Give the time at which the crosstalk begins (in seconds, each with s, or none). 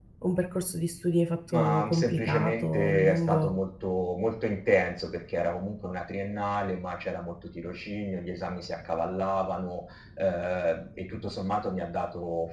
1.5 s